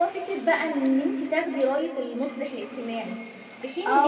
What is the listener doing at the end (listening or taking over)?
taking over